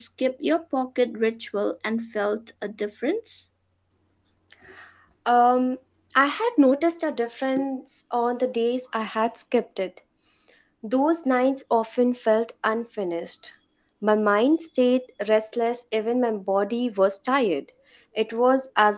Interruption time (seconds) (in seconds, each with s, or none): none